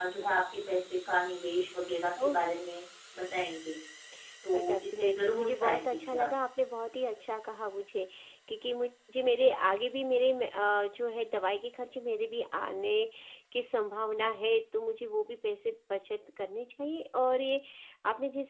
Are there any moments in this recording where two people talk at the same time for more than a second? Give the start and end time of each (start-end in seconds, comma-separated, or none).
4.5-6.3